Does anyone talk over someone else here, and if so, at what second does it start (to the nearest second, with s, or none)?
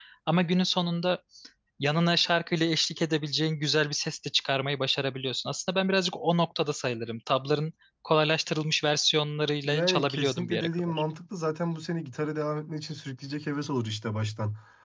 10 s